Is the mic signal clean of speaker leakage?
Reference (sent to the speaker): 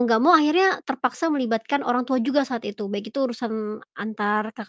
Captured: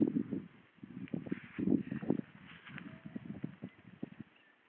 Yes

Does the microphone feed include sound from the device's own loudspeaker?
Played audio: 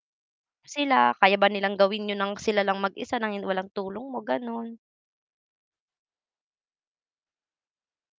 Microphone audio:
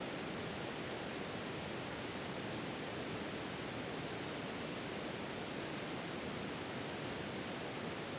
No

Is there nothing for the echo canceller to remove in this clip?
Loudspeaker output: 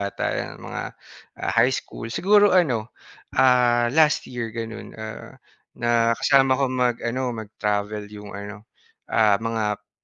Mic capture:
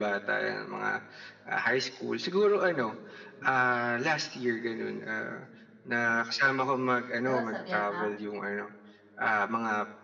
No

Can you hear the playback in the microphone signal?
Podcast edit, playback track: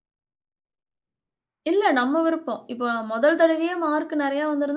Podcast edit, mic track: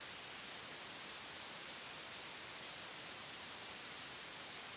No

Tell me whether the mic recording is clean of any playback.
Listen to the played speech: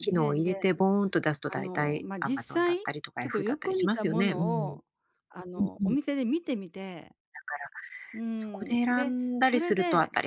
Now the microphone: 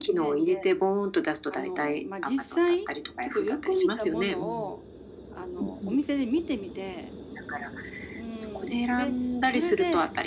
No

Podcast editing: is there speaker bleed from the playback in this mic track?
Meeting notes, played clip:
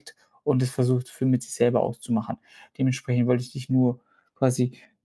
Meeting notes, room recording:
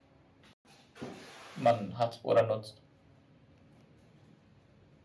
No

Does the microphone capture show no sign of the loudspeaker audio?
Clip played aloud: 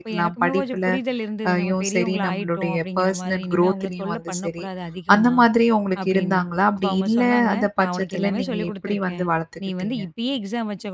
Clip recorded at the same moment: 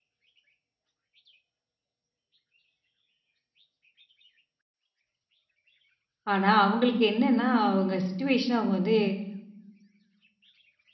Yes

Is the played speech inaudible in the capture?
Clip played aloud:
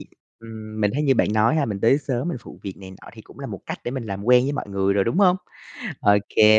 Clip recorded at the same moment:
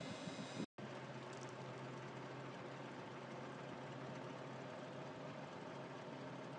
Yes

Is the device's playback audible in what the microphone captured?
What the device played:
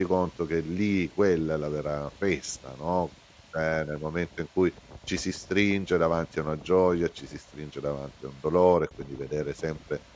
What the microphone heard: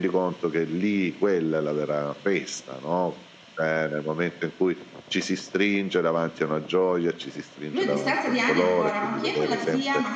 Yes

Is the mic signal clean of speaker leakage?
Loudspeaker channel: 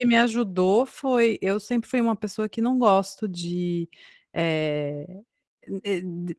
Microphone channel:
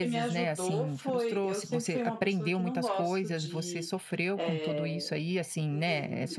No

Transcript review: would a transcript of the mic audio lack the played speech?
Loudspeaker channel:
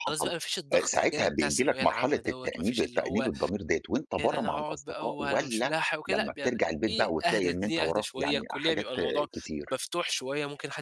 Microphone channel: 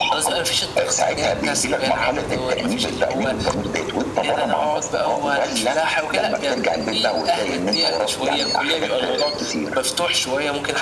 No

